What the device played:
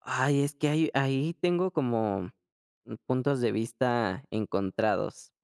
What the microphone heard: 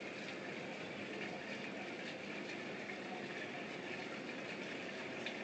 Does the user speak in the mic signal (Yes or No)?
No